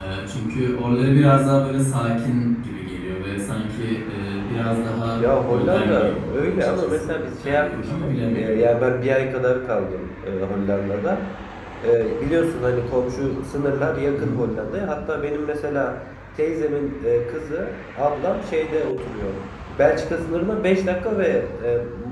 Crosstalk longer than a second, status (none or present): present